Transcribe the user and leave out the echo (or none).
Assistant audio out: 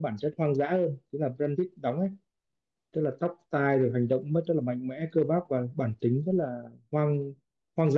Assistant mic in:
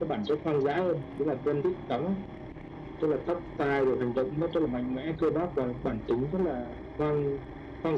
none